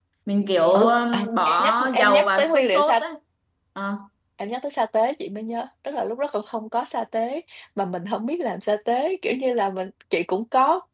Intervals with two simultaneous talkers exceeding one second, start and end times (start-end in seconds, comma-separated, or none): 0.7-3.0